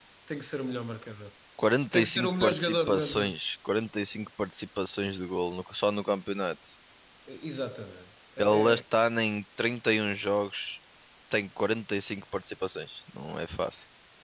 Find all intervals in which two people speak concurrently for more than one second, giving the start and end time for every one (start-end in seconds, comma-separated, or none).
1.9-3.3